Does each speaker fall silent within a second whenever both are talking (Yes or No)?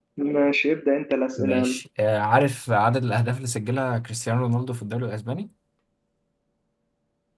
Yes